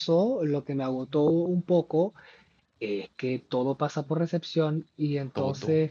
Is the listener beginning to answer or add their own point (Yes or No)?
No